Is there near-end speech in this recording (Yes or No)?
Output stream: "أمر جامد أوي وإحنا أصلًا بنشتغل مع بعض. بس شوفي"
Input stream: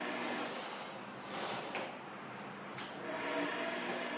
No